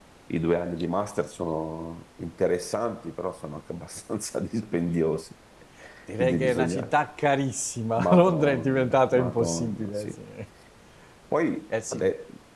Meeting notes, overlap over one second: present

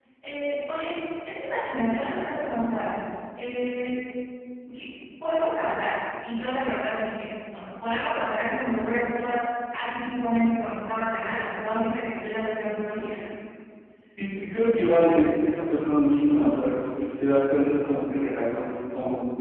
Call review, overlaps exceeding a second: none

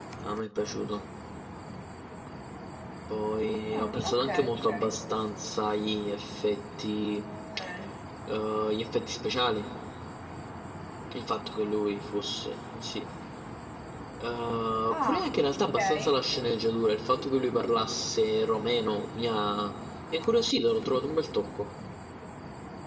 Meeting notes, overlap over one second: present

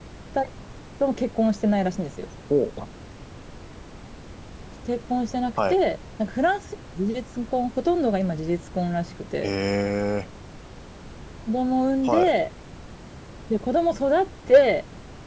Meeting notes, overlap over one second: none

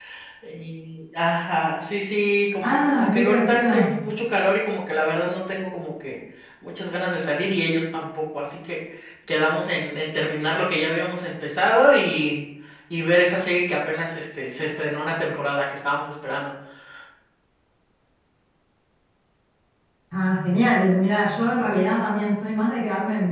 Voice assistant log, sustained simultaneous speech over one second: present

